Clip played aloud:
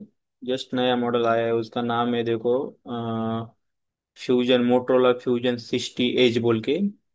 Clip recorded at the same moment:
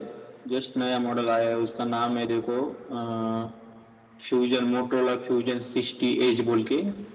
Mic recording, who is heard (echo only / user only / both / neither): echo only